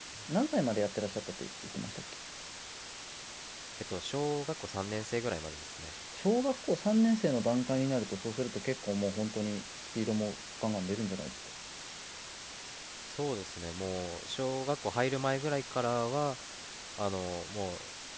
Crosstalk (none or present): none